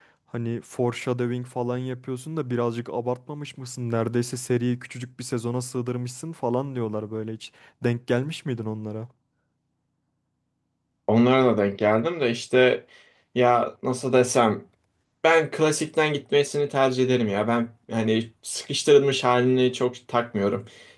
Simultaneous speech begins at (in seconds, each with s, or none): none